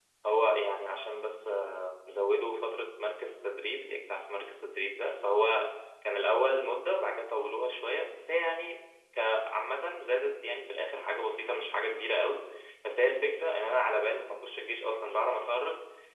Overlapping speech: No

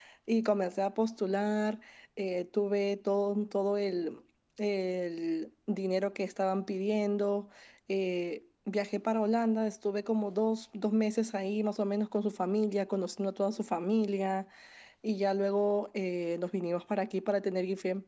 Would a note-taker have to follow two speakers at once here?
No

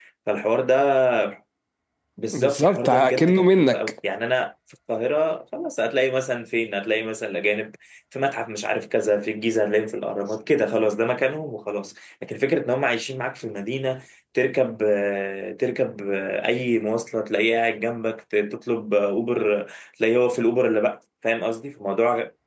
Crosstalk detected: Yes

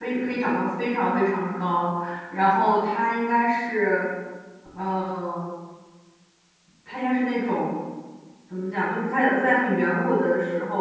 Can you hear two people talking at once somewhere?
No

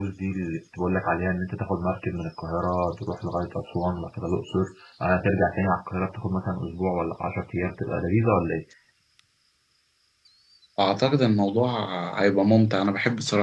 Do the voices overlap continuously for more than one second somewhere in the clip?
No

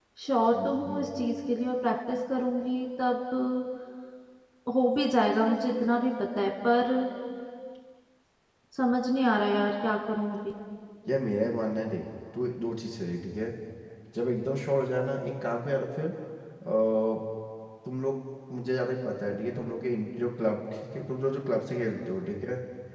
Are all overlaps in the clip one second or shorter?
Yes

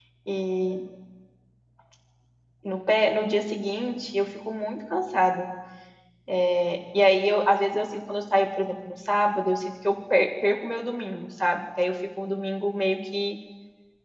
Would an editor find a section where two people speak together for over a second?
No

